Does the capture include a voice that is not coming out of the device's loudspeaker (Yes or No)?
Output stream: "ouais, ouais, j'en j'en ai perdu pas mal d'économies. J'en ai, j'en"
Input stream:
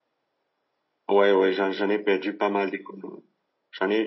No